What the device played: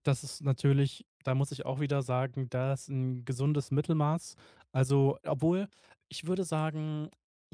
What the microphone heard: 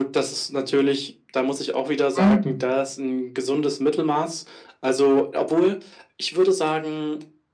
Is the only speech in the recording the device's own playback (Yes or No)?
No